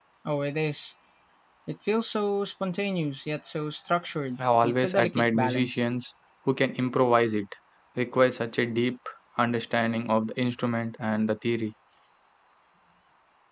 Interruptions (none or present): present